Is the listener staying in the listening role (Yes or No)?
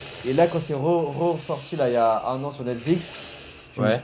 Yes